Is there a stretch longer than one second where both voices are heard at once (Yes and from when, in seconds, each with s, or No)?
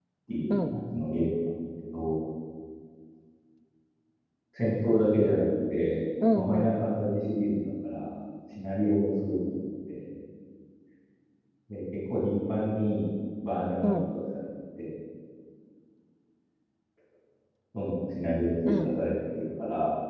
No